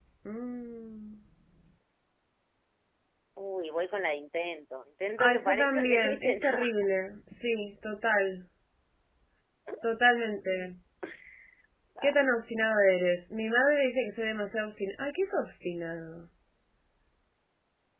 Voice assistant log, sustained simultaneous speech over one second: present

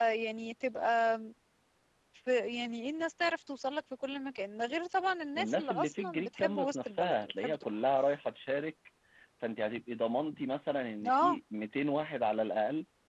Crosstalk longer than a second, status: present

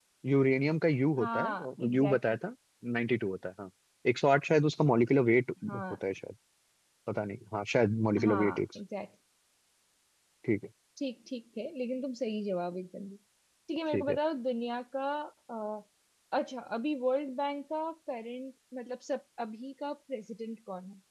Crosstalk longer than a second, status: present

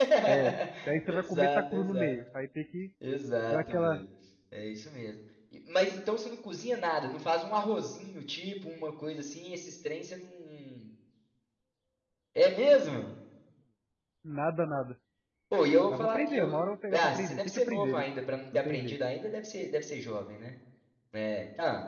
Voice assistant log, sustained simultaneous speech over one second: present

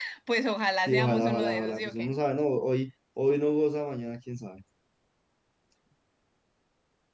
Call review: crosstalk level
present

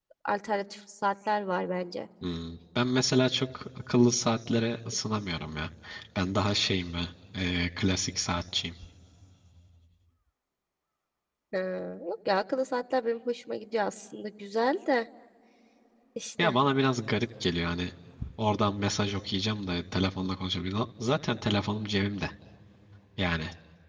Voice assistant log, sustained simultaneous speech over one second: none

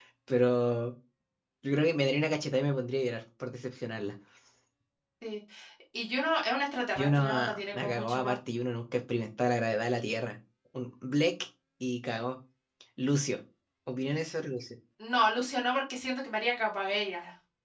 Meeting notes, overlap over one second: present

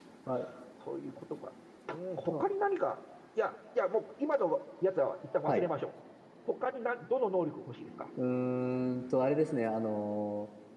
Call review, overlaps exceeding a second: none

